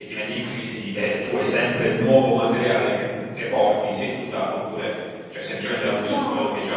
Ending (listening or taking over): taking over